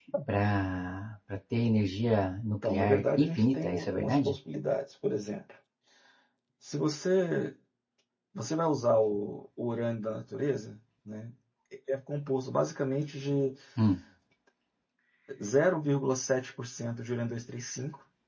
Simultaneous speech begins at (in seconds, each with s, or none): 2.5 s